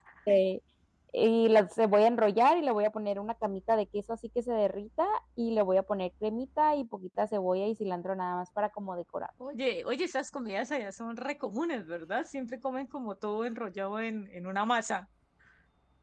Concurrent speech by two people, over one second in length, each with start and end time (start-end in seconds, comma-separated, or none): none